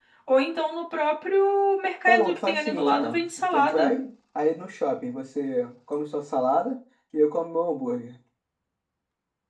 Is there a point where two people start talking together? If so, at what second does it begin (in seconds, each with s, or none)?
2.1 s